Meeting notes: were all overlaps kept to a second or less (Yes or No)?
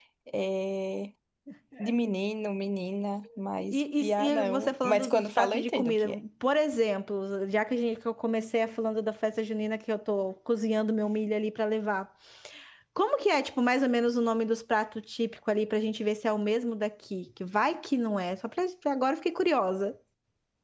No